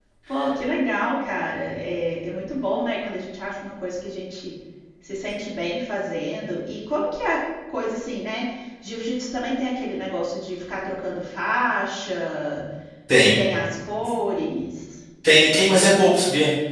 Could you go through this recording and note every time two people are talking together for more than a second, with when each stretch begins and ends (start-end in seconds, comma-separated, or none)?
none